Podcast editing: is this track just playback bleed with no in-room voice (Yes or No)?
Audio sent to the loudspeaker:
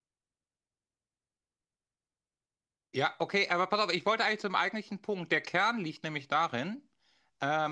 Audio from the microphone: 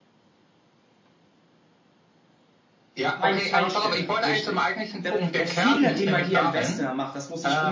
No